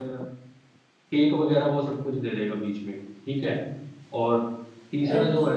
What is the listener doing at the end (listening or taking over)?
listening